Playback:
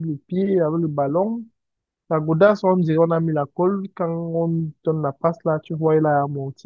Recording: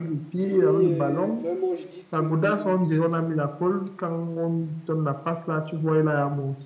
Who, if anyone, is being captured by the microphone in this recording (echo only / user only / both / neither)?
both